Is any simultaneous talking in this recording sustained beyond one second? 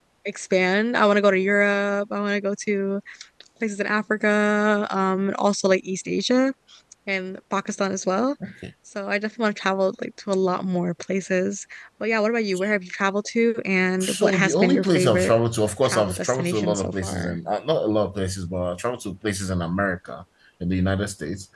Yes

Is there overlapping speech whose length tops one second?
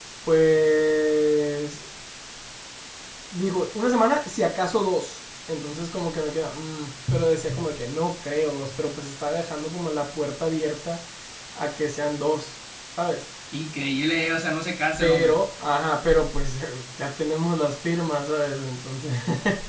No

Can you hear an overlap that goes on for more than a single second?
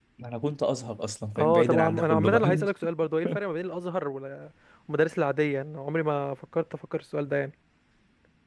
Yes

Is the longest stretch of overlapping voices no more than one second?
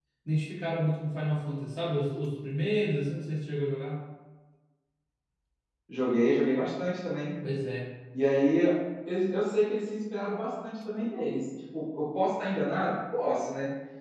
Yes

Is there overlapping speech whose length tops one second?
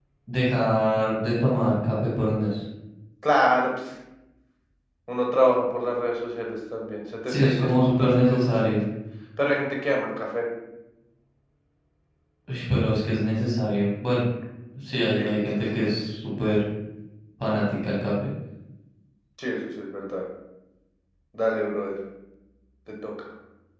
Yes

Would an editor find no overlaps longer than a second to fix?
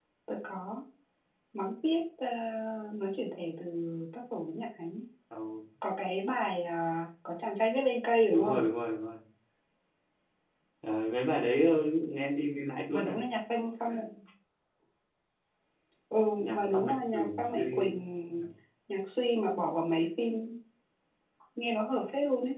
No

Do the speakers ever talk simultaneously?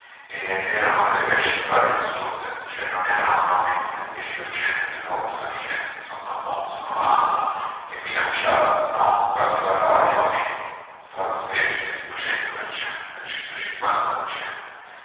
No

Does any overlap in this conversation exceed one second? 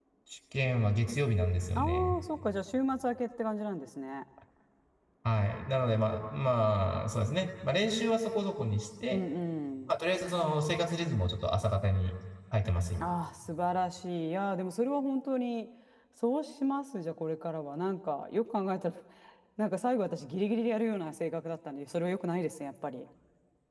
No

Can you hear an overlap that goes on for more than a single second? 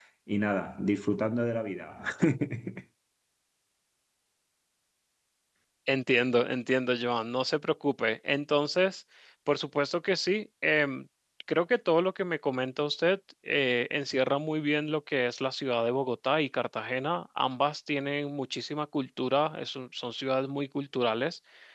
No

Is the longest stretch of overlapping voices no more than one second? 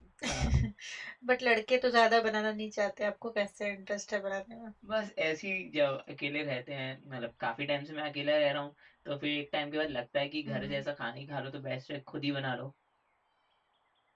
Yes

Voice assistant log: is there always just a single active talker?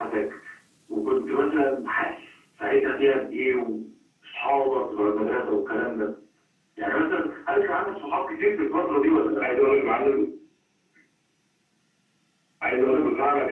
Yes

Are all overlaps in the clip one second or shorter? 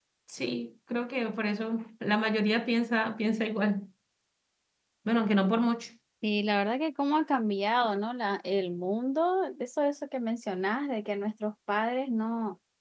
Yes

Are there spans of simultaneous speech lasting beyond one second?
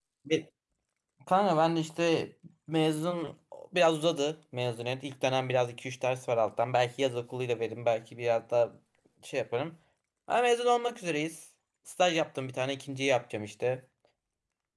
No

